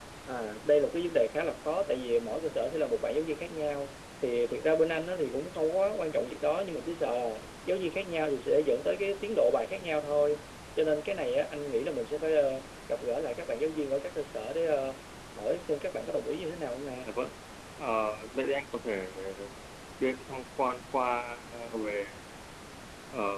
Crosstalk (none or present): none